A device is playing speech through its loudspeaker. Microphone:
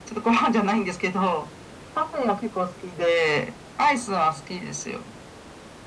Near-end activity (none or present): none